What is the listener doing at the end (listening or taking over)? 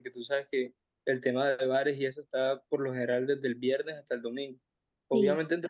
listening